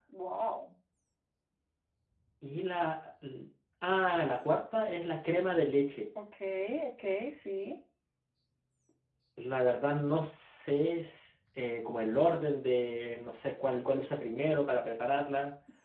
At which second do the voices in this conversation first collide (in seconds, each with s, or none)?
none